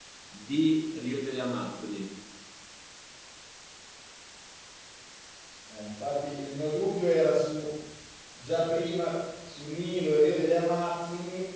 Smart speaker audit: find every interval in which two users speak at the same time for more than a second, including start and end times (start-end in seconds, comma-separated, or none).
none